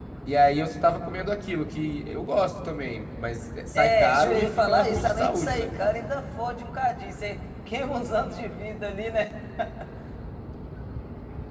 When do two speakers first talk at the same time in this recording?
4 s

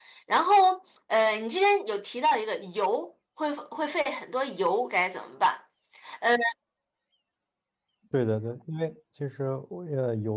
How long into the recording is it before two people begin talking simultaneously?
none

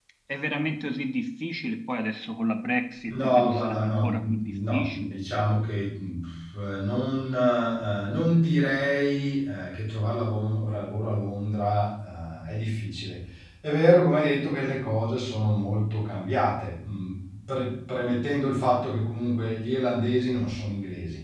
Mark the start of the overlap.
3 s

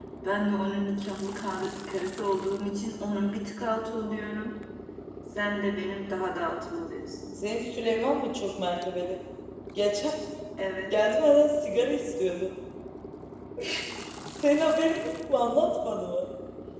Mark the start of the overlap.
none

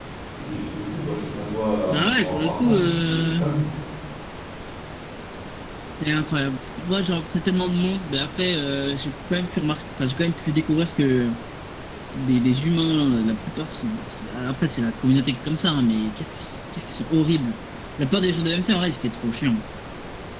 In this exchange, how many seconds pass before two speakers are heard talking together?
2 s

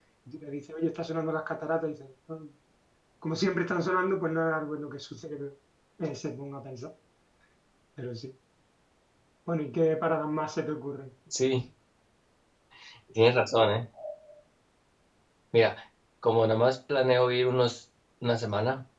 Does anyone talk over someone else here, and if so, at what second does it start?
none

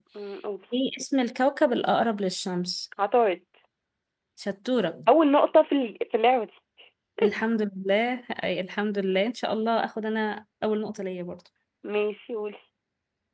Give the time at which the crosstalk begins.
none

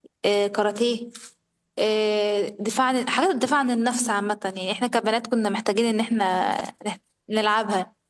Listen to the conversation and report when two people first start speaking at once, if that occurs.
none

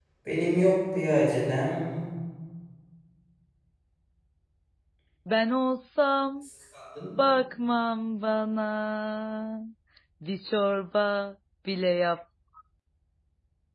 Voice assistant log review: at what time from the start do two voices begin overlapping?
none

